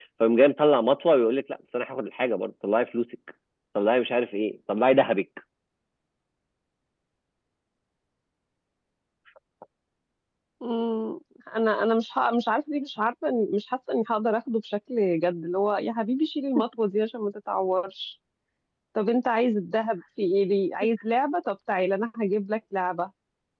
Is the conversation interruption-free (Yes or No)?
Yes